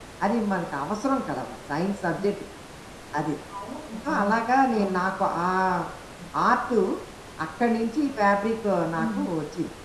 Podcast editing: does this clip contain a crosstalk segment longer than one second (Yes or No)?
No